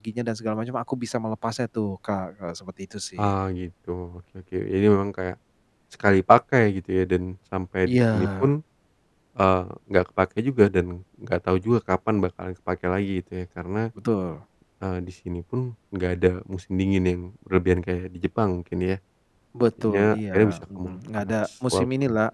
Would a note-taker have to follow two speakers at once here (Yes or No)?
Yes